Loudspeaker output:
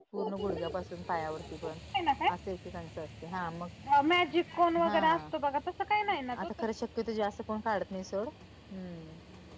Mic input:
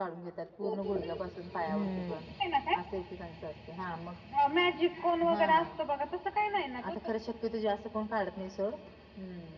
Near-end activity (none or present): present